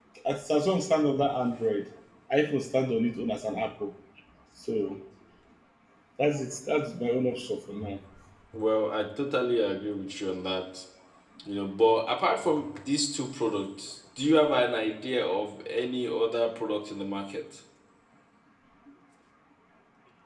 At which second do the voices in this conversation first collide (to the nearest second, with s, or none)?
none